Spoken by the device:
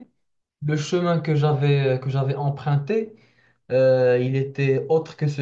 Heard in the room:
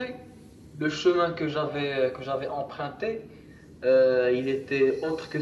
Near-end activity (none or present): none